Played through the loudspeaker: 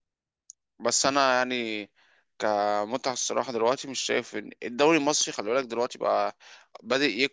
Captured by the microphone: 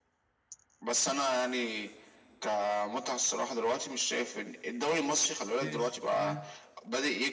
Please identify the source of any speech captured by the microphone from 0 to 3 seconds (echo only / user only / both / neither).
echo only